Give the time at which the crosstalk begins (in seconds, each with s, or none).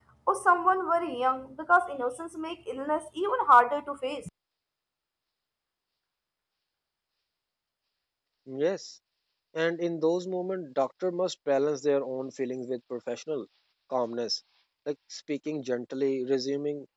none